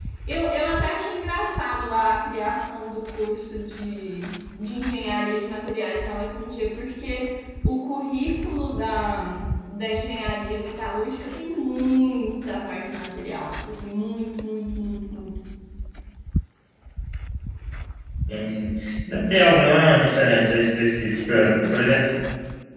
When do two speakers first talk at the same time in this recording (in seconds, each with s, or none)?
none